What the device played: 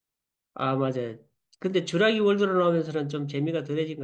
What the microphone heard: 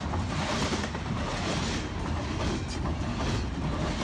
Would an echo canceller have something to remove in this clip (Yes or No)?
No